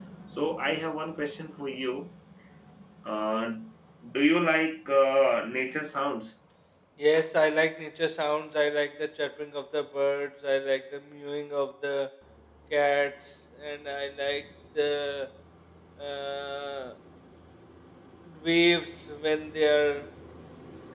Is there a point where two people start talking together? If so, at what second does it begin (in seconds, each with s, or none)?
none